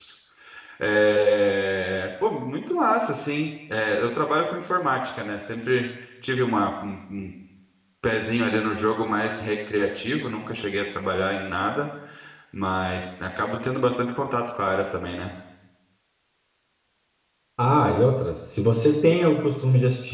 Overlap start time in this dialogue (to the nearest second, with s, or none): none